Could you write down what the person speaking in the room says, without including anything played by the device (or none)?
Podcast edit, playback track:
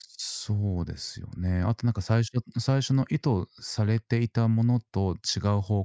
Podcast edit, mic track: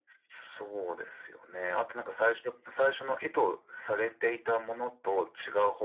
none